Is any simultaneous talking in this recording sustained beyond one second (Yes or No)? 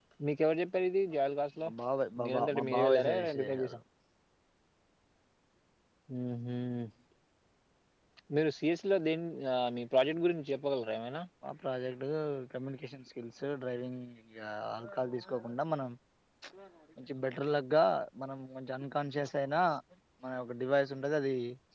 Yes